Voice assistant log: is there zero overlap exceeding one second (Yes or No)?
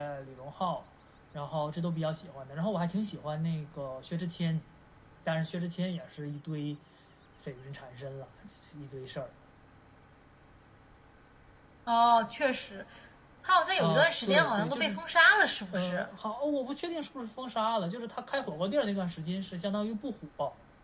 No